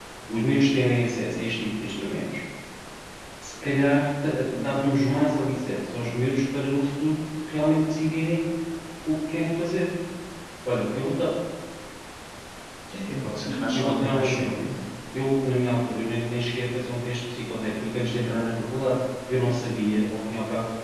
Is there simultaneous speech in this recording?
Yes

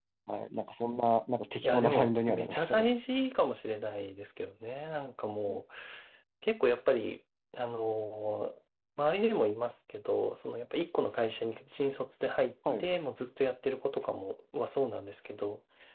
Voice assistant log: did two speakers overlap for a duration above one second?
Yes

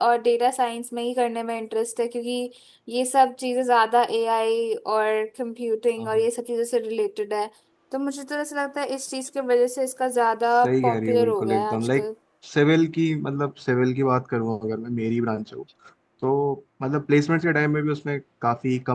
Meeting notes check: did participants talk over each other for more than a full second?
Yes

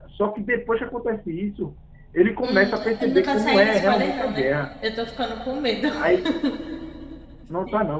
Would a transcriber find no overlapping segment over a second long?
No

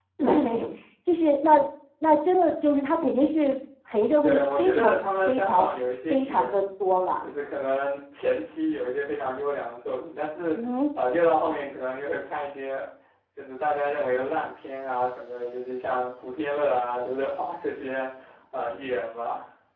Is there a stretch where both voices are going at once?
Yes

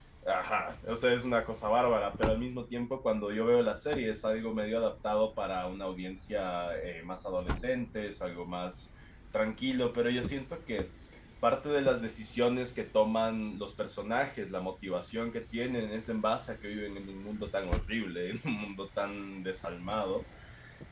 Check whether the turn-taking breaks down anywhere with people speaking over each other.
No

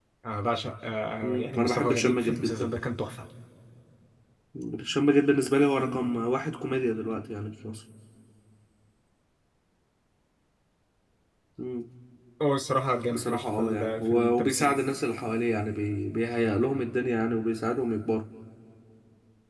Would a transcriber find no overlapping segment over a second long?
No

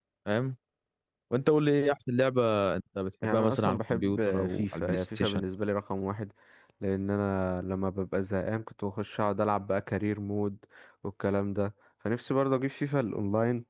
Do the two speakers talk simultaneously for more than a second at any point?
Yes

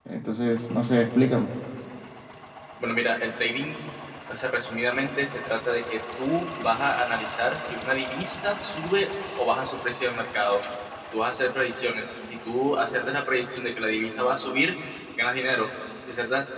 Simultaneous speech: No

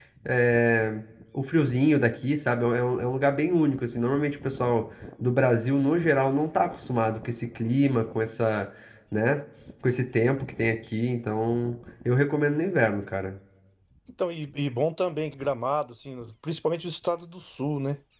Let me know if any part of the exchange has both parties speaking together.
No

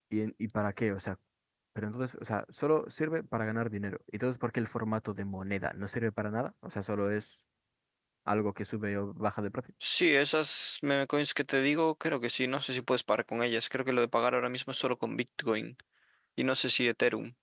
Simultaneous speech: No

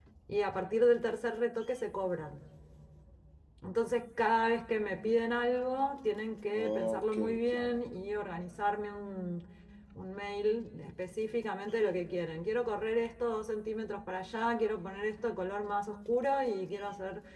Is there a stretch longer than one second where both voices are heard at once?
Yes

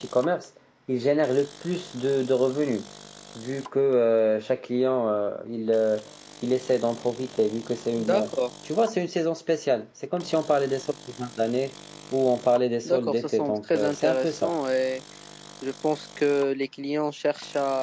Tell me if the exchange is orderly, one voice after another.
No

